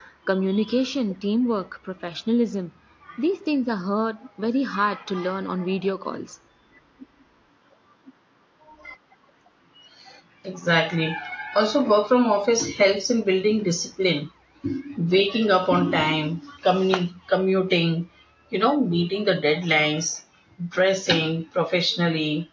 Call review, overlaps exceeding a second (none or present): none